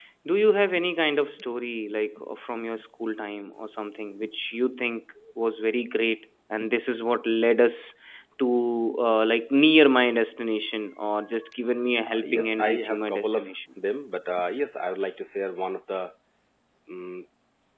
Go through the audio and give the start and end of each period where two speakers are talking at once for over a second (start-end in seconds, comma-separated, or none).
12.1-13.5